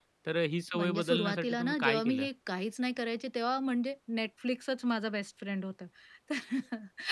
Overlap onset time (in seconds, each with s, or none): 0.8 s